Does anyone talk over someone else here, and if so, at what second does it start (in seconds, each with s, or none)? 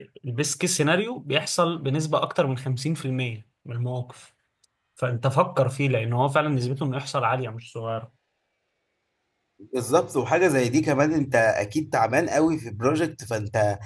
none